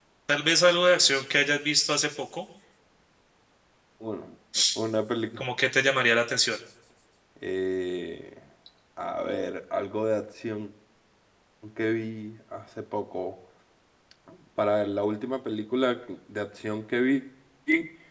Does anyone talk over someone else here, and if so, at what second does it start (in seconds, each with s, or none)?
none